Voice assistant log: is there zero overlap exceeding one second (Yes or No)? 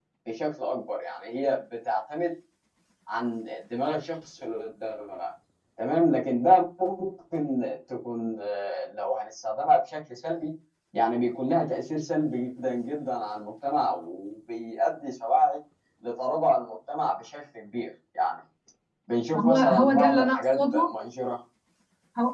No